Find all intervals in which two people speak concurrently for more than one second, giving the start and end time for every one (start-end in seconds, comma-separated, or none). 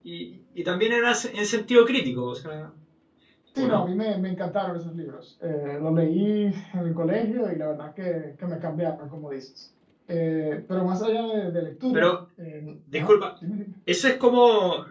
none